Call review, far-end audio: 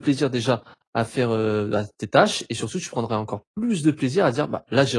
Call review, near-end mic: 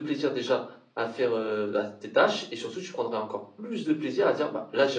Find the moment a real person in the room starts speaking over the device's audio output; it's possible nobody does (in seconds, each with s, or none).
none